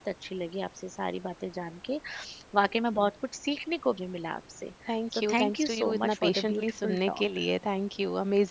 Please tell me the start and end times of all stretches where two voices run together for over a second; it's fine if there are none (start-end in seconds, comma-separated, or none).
5.1-7.2